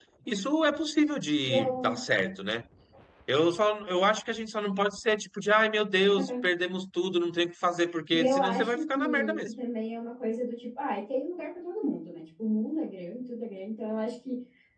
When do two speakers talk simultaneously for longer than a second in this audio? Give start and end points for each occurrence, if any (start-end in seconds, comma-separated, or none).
8.1-9.5